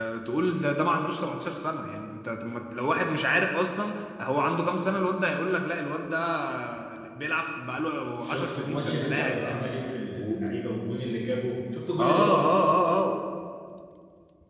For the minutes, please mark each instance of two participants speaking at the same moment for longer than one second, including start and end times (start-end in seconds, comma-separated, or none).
8.2-9.7